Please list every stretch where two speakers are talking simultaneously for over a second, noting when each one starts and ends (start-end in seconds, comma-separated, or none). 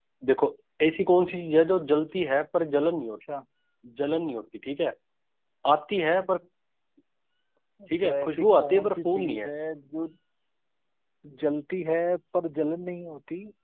8.0-9.5